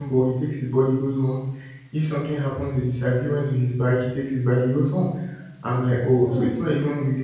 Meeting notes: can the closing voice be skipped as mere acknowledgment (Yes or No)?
Yes